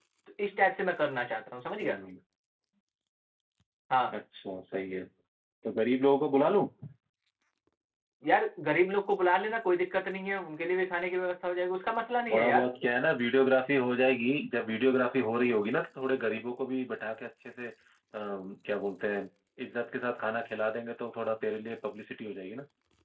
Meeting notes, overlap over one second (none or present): none